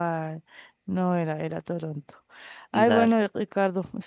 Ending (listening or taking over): listening